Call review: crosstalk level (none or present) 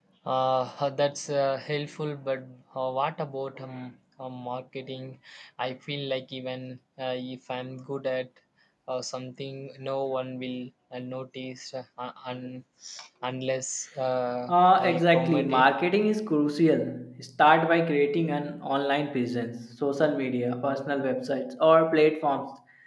present